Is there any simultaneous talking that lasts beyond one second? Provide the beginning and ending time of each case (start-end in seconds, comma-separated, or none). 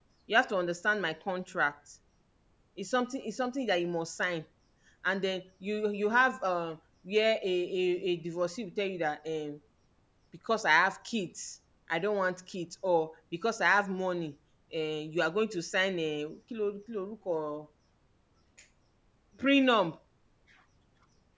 none